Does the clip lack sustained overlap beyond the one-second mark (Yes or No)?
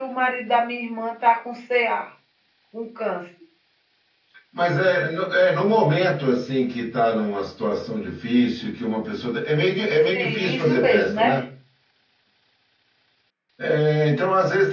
No